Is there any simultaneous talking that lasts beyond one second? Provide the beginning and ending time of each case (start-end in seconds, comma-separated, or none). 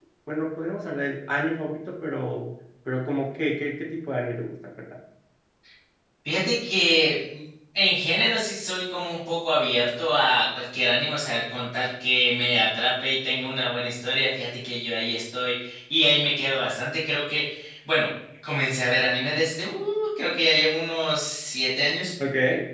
none